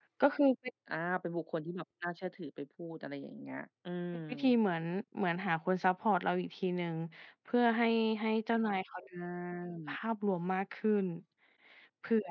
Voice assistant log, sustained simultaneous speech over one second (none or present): none